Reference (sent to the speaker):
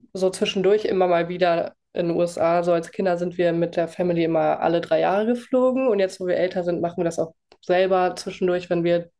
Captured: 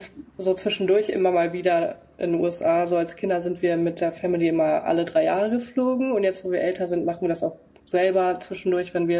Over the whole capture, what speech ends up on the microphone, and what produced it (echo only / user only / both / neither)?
echo only